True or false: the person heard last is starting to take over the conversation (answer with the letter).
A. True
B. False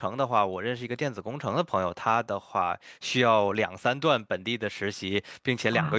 B